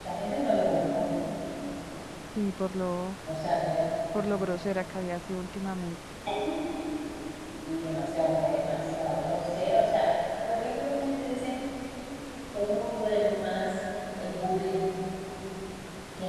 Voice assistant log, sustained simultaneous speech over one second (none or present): none